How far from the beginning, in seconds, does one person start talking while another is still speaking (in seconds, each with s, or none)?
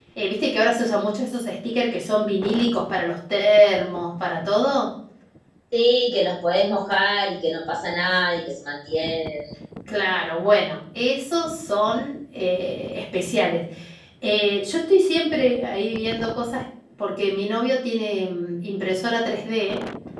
none